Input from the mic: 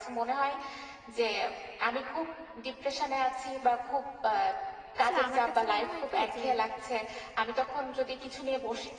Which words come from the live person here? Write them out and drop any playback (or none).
আসলে আমার কাছে মনে হয় কি যে